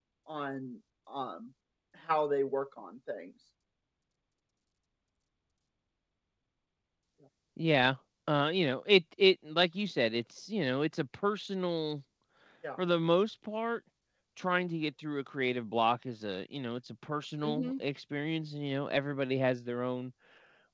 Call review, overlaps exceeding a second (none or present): none